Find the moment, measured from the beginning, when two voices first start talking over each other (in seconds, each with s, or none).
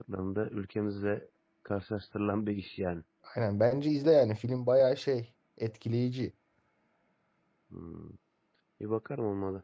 none